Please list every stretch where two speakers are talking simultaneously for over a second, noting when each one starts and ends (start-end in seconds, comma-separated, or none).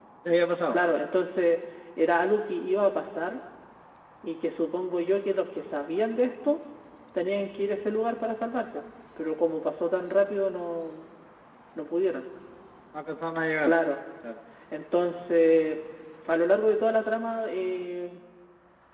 none